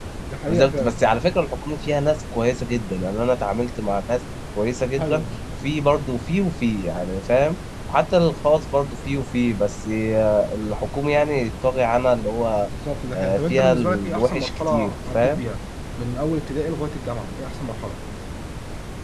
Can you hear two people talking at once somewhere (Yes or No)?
Yes